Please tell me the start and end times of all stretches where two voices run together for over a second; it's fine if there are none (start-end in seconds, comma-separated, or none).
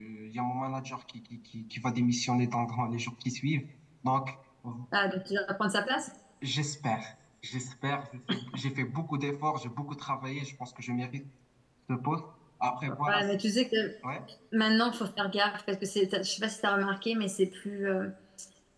none